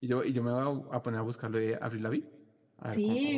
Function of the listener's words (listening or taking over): taking over